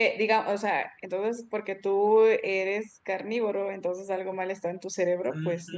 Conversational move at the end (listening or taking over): taking over